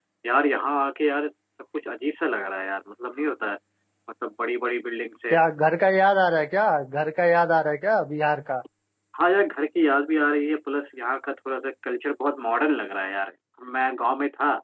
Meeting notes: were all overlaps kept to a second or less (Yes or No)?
Yes